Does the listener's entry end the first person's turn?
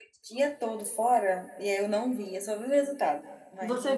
Yes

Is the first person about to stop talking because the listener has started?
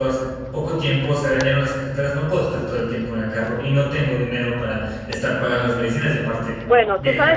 Yes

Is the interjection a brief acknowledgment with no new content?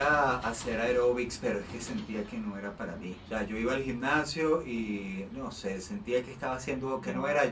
Yes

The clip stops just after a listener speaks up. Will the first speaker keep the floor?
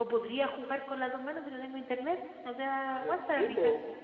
No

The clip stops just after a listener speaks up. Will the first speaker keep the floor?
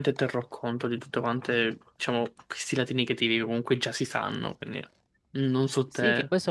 No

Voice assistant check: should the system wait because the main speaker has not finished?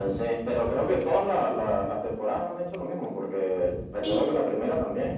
Yes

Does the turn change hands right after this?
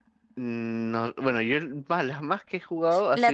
Yes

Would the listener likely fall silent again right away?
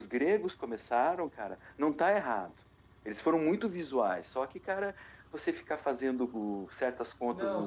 No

